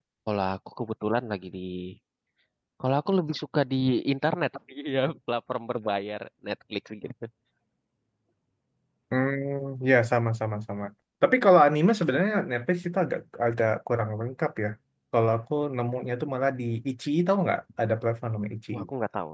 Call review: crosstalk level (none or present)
none